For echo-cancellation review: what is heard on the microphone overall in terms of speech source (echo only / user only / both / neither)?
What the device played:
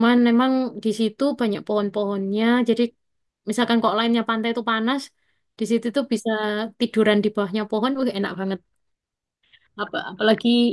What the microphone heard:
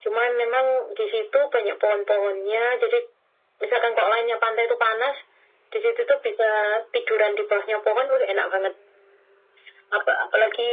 echo only